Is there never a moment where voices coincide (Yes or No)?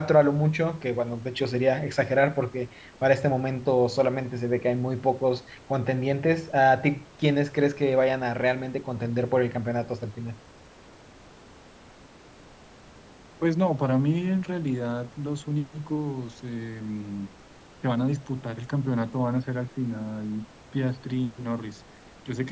Yes